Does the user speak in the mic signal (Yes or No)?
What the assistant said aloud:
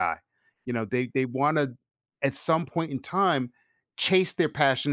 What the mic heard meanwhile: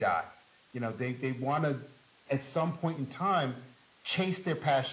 No